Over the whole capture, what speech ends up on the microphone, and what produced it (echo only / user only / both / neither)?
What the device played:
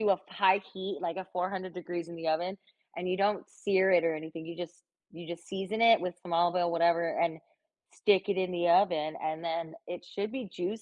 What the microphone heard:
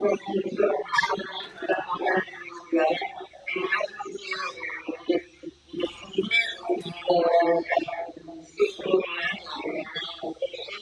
echo only